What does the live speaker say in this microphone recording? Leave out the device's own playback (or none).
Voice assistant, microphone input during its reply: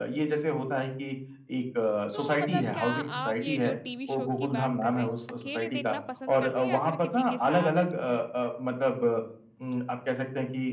तो मतलब क्या आप ये जो टीवी शो की बात कर रहे हैं, अकेले देखना पसंद करते हैं या फिर किसी के साथ?